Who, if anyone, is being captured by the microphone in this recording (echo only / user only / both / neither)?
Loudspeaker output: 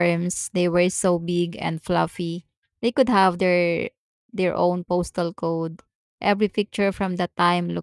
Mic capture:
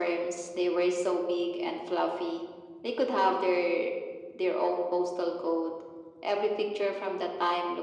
echo only